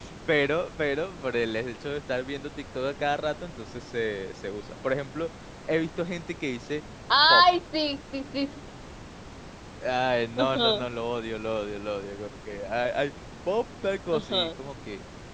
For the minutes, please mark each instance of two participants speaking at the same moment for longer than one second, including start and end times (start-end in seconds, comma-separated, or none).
none